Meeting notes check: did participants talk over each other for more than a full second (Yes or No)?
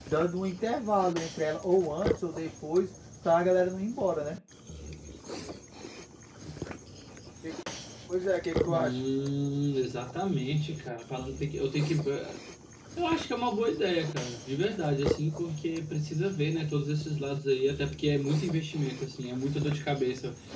No